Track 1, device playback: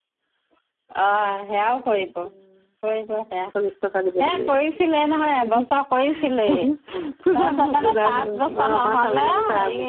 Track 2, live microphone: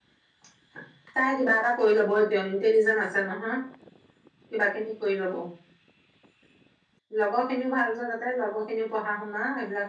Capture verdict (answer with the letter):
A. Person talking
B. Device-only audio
A